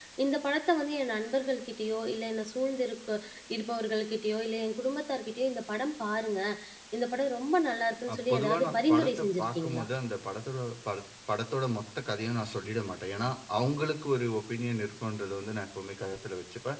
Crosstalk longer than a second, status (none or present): present